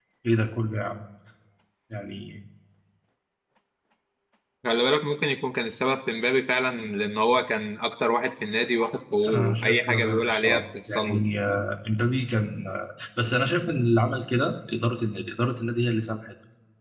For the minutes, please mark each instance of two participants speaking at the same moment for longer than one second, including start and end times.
9.3-11.2

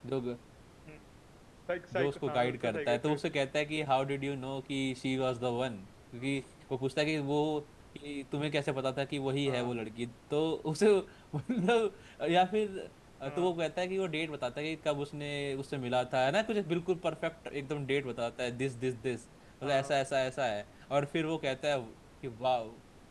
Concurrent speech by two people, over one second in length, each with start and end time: 1.9-3.2

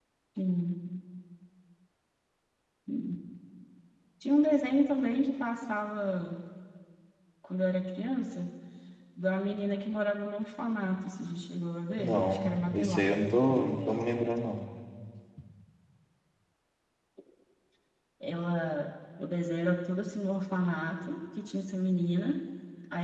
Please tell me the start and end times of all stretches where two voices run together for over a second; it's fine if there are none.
12.0-14.0

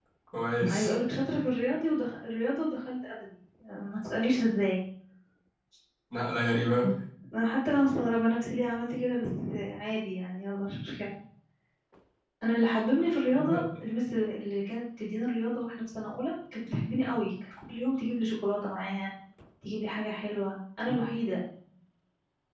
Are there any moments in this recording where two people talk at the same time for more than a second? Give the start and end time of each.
none

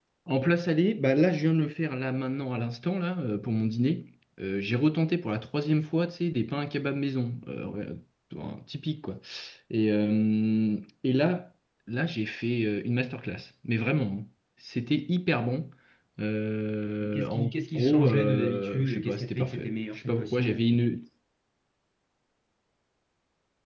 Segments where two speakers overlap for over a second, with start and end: 17.1-20.5

